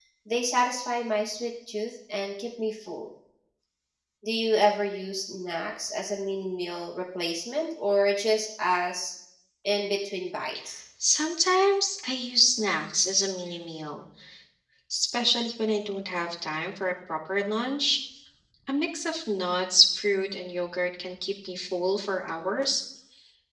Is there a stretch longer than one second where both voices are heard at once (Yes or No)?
No